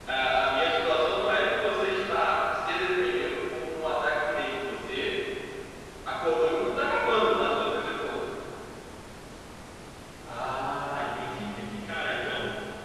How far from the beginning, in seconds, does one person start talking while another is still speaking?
none

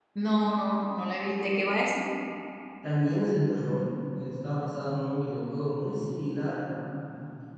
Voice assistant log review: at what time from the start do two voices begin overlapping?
none

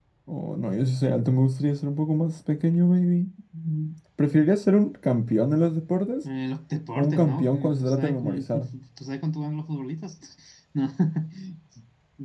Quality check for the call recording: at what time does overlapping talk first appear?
7.0 s

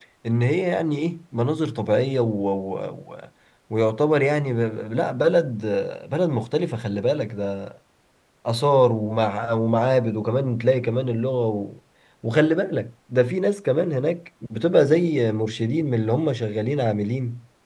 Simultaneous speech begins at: none

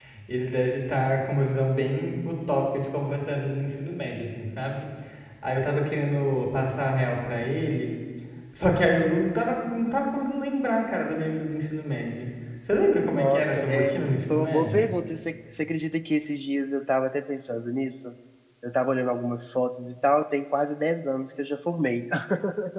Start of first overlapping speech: 13.1 s

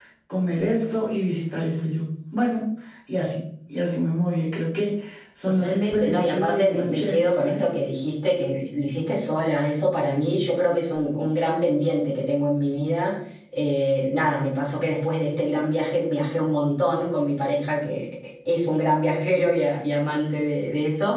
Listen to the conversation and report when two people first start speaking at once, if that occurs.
5.5 s

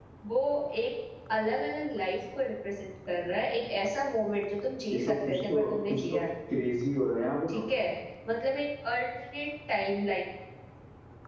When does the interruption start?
4.9 s

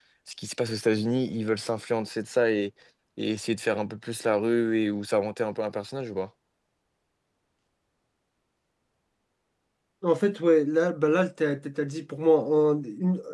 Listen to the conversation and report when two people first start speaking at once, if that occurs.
none

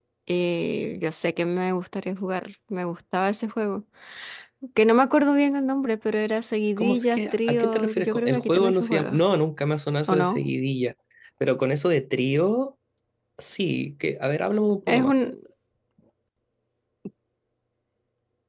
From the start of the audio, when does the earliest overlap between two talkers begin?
6.8 s

